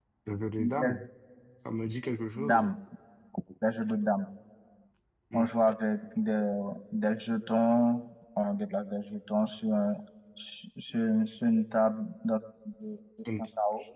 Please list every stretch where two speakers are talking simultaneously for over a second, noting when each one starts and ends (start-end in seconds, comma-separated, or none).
none